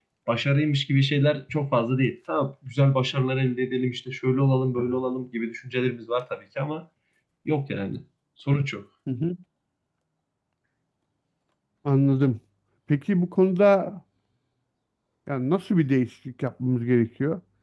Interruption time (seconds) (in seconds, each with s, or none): none